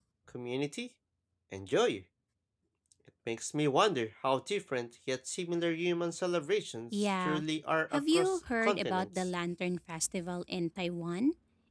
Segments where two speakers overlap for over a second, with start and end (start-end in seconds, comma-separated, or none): 7.9-9.3